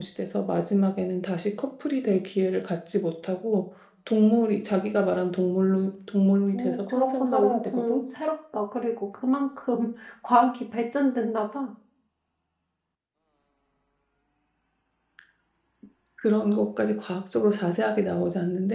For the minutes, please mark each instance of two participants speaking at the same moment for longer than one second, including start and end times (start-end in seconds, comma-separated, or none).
6.5-8.0